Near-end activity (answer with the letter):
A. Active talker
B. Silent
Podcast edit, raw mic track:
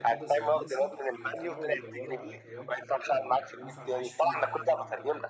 A